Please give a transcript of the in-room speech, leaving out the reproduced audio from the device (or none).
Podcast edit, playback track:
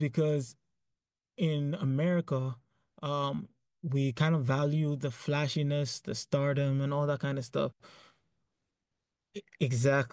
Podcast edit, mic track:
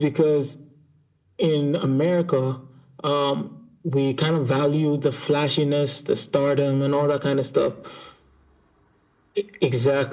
none